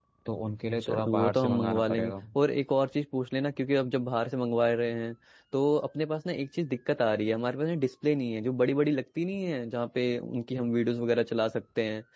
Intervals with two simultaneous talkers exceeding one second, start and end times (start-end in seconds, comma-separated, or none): 0.8-2.1